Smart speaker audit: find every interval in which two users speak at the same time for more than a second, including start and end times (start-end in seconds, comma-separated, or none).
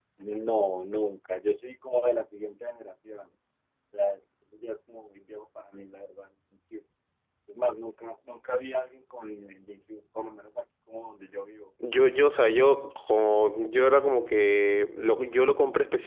none